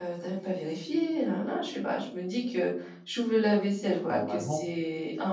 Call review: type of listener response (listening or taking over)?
listening